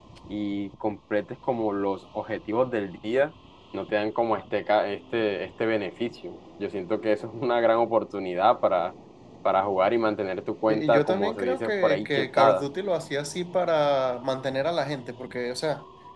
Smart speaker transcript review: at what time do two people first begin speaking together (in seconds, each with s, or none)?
10.7 s